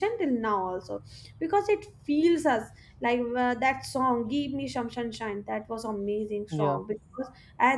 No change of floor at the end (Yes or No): Yes